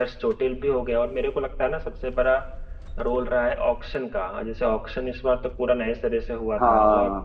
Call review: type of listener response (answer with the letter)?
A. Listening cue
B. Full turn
A